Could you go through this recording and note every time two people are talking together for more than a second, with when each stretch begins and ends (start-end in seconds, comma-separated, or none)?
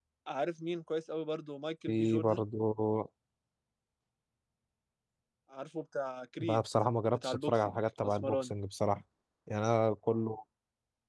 7.1-8.6